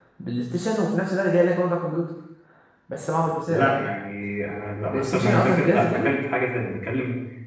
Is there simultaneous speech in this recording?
Yes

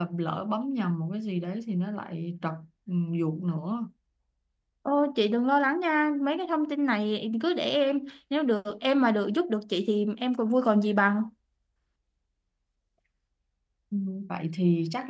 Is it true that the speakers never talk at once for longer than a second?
Yes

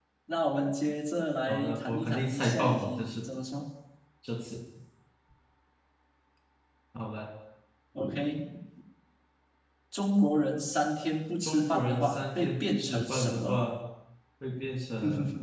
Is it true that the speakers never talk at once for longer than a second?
No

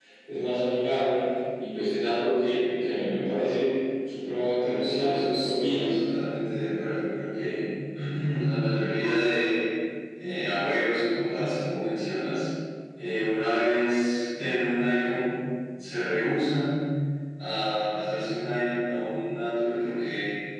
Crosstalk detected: Yes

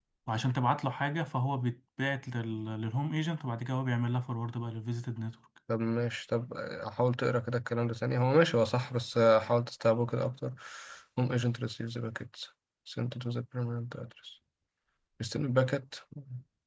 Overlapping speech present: No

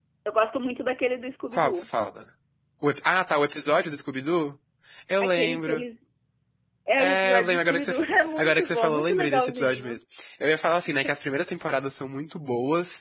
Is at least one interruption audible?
Yes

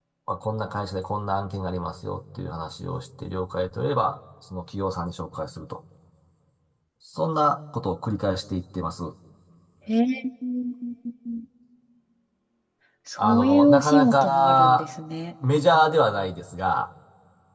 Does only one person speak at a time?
No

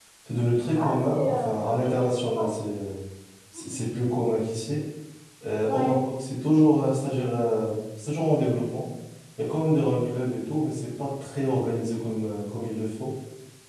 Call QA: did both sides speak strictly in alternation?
No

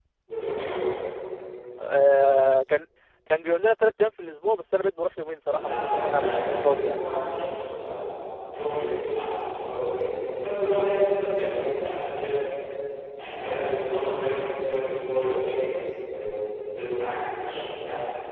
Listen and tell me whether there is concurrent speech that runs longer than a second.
Yes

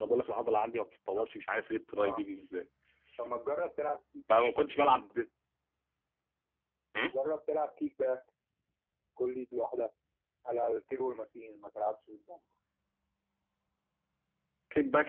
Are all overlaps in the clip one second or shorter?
Yes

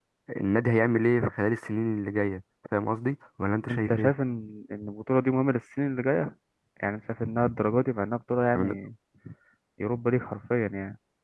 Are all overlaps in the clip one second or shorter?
Yes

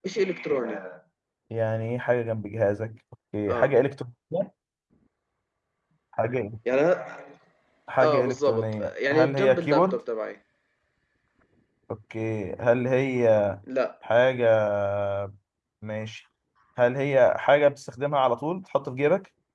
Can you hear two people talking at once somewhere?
Yes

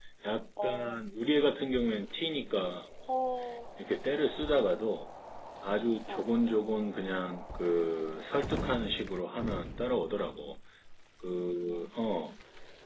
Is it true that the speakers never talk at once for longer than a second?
Yes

